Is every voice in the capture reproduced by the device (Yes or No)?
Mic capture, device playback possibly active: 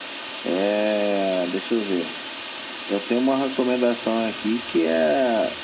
Yes